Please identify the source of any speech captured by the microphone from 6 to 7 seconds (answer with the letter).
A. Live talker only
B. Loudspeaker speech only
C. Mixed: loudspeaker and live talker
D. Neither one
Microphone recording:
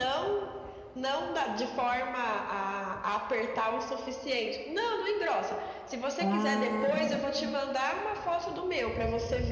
C